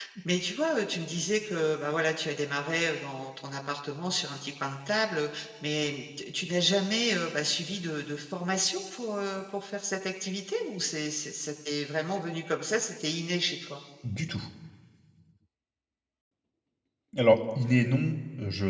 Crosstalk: none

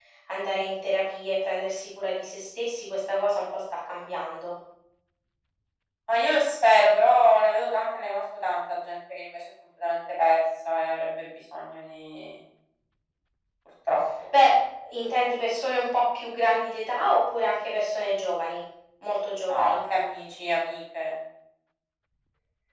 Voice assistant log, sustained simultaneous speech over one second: none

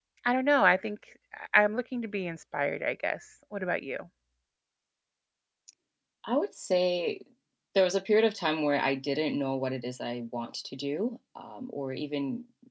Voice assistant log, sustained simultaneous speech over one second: none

